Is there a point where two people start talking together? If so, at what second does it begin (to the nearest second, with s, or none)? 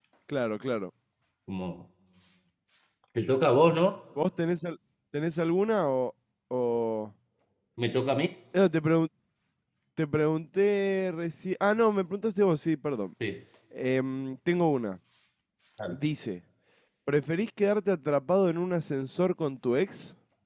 none